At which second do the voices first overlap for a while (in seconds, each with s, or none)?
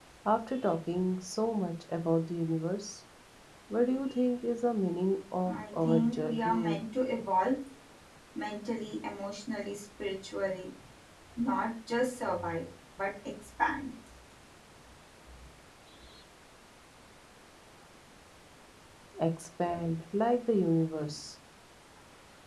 5.5 s